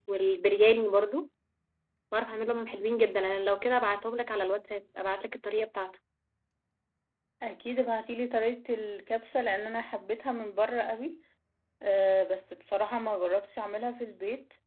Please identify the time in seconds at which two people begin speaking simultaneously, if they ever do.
none

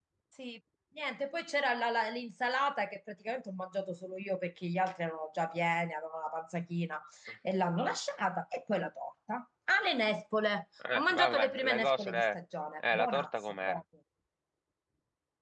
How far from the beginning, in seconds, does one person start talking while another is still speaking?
10.8 s

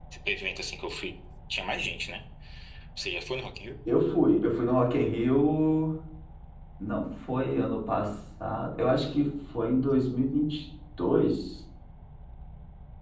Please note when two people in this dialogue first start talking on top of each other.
none

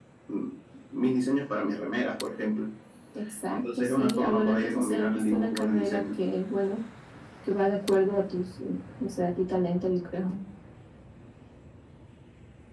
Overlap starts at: 3.8 s

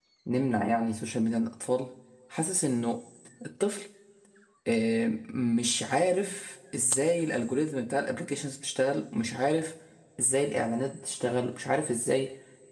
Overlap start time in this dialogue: none

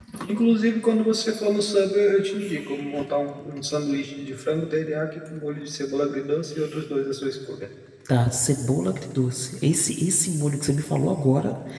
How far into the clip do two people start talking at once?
none

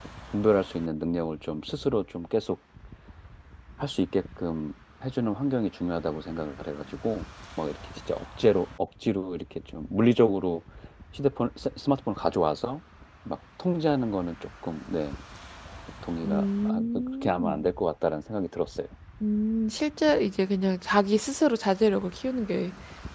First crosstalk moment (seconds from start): 16.2 s

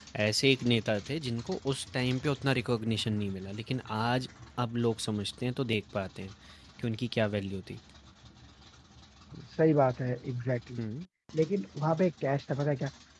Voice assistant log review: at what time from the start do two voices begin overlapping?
none

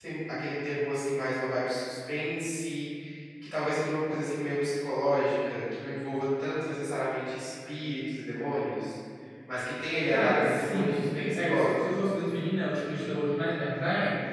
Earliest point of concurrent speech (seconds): 10.1 s

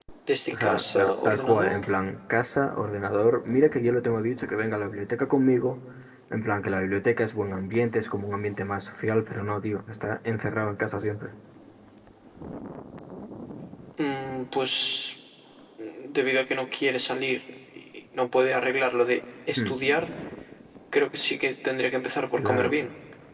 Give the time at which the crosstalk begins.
0.5 s

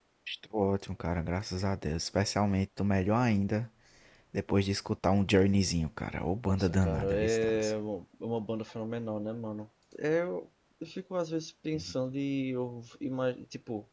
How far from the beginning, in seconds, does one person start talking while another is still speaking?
6.5 s

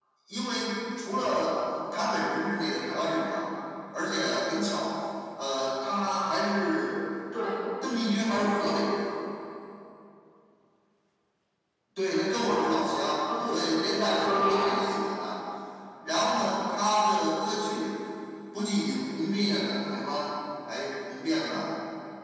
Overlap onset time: 13.3 s

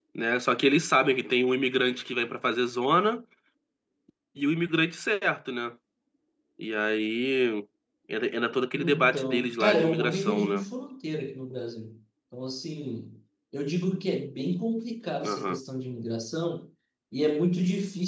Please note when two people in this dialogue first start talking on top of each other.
8.7 s

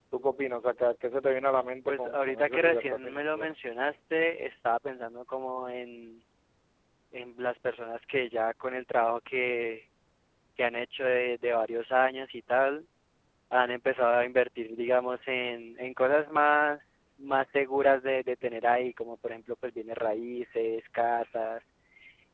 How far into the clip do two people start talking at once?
1.9 s

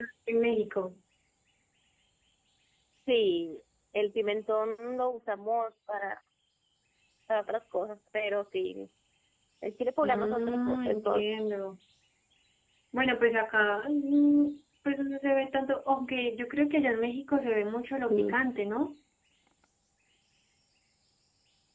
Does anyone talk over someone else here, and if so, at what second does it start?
10.0 s

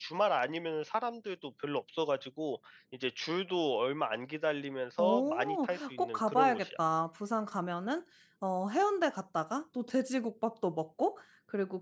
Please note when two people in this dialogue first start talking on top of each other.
5.0 s

